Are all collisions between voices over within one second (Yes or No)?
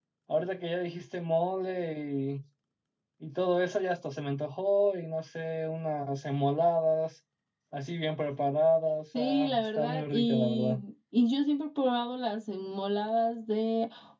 No